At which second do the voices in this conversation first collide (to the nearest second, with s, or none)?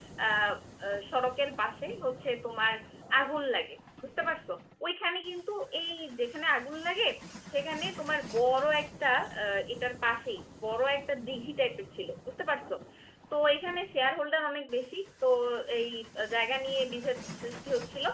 none